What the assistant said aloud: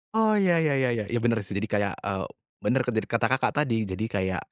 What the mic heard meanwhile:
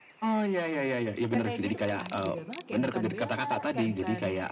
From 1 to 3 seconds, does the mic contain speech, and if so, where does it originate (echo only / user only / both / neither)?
both